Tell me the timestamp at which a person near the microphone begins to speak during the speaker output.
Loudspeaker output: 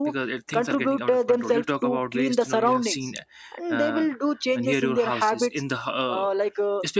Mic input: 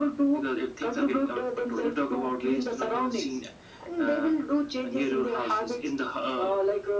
none

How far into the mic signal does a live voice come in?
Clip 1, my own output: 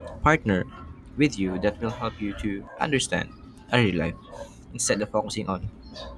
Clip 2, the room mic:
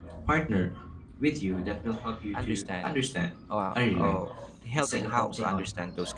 2.3 s

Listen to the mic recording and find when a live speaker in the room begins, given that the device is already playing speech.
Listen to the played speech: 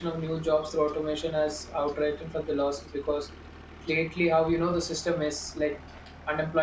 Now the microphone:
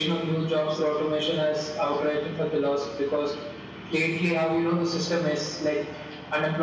none

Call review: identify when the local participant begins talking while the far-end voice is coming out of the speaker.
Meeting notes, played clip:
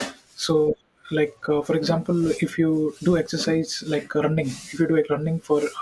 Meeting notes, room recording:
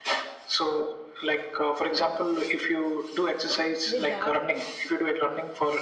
3.9 s

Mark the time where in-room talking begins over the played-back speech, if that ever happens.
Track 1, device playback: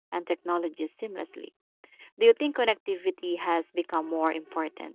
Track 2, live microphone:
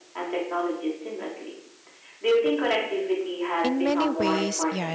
3.6 s

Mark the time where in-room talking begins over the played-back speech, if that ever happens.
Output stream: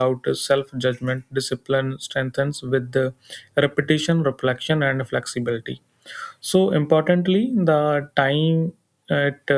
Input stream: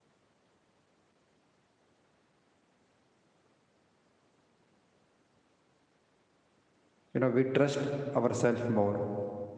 7.2 s

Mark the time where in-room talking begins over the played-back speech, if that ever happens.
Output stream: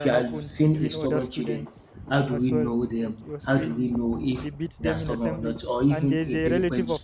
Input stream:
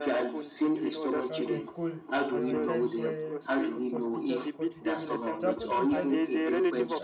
1.3 s

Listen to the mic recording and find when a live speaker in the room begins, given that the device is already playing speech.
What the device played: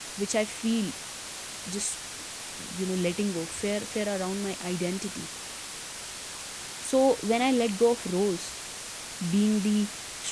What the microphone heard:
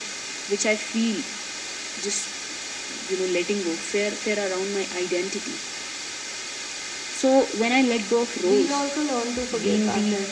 8.4 s

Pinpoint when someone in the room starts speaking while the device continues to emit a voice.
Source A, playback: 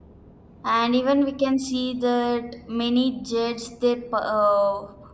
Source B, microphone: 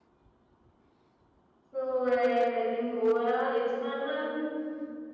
1.7 s

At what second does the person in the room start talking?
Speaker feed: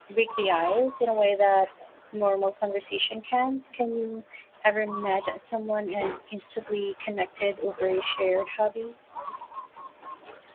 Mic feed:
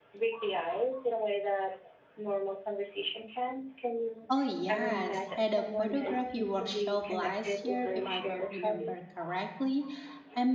4.3 s

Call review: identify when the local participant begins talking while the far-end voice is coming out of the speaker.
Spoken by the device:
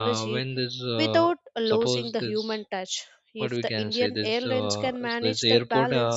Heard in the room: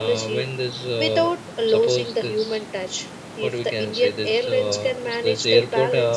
none

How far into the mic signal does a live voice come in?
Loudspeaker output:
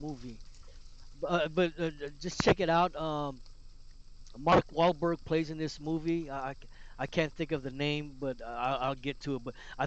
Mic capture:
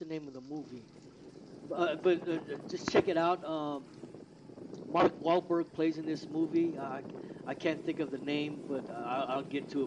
none

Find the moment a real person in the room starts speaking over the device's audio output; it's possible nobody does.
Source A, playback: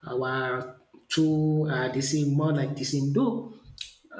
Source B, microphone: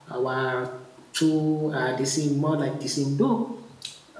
none

